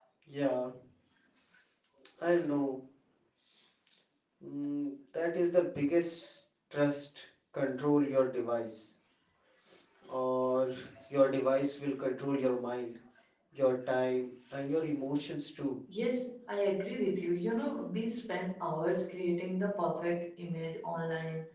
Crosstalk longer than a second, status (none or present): none